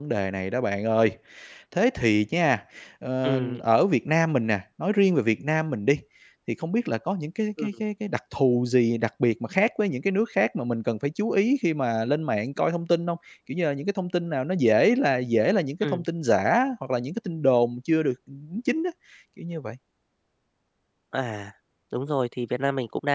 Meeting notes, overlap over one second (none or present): none